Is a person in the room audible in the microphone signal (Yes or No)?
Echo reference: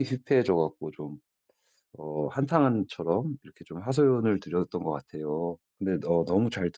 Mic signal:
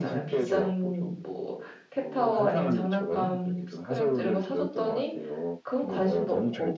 Yes